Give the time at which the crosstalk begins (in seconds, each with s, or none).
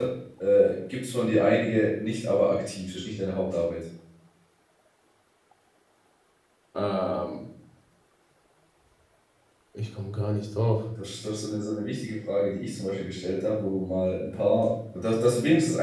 none